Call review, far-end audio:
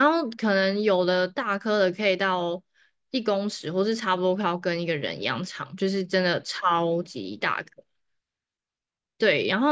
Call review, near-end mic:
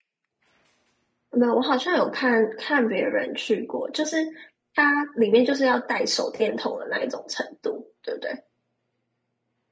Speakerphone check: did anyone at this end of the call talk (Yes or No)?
Yes